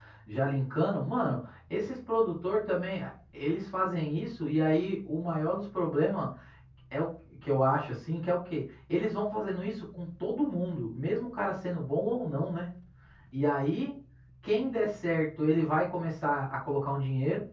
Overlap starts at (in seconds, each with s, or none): none